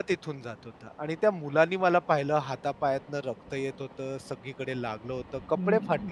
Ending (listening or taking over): taking over